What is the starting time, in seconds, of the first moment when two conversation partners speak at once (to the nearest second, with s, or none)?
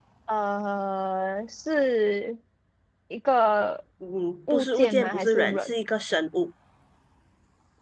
5 s